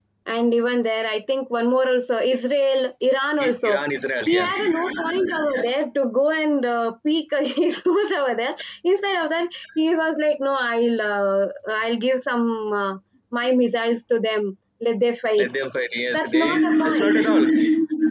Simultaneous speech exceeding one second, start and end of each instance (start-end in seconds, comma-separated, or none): 16.1-17.5